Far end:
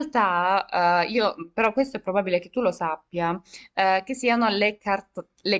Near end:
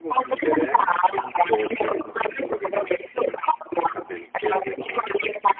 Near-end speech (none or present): present